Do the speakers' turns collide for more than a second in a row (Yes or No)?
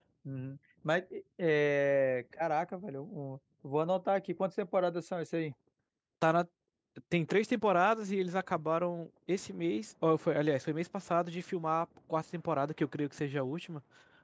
No